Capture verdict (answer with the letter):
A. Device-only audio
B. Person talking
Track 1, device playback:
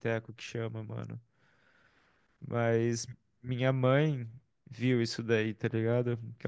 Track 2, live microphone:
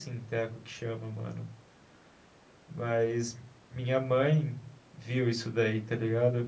A